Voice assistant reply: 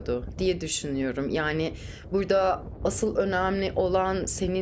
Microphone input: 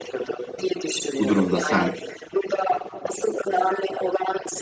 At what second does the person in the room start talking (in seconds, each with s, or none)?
1.2 s